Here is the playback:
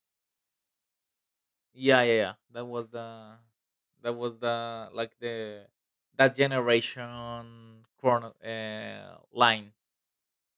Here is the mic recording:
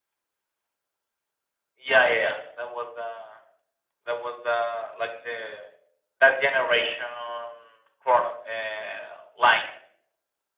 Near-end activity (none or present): none